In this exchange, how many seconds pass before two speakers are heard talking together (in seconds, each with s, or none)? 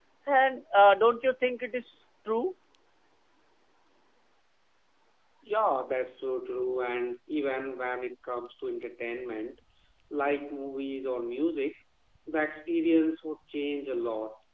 none